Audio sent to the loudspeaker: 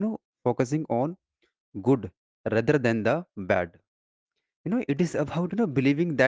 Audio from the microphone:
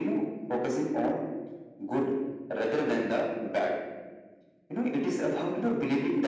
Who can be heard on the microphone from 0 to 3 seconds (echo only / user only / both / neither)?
echo only